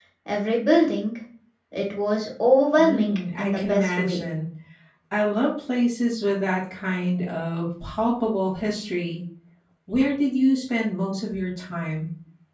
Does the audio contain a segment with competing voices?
Yes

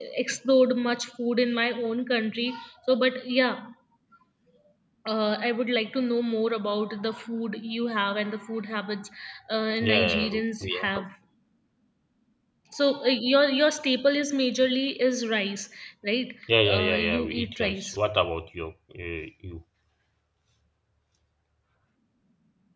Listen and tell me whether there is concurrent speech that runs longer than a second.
Yes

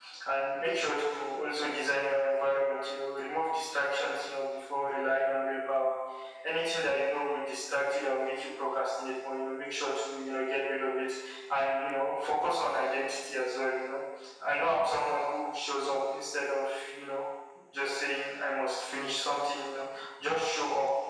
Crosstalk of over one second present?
No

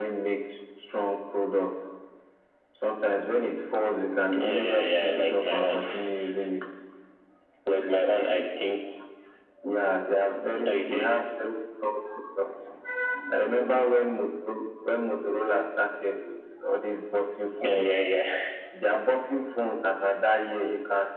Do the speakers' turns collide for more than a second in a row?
Yes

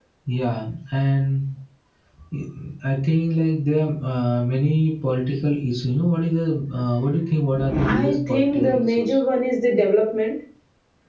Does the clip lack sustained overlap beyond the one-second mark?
No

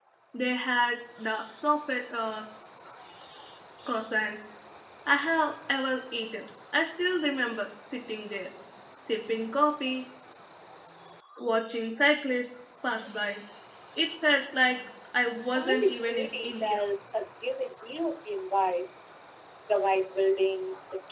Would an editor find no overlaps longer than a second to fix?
No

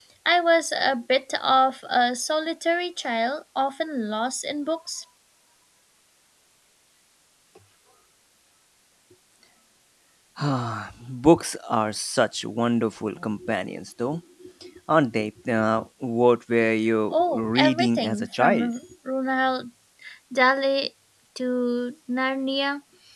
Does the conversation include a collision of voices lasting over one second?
Yes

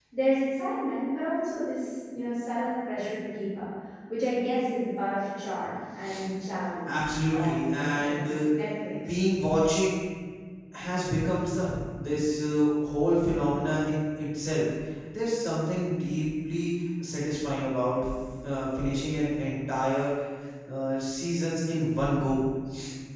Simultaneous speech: Yes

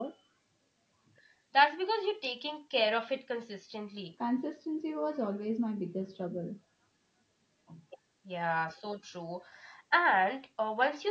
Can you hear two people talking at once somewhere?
No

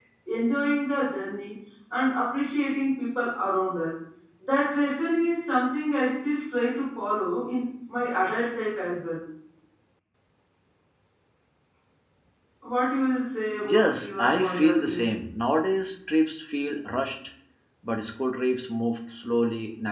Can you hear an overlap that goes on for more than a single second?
Yes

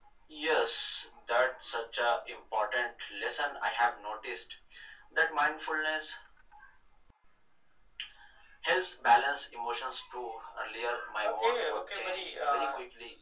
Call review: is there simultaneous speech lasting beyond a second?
Yes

